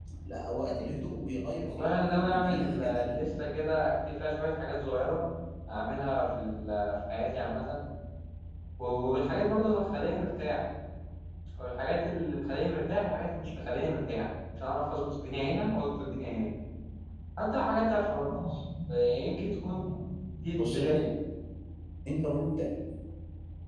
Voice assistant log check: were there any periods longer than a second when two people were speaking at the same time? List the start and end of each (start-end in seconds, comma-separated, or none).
1.7-3.2